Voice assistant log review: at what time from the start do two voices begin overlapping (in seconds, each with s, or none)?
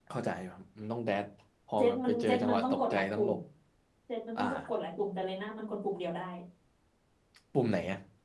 1.8 s